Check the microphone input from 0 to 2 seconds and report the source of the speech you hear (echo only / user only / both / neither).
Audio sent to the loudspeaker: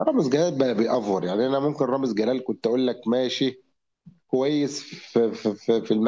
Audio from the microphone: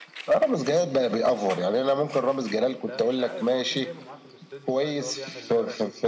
echo only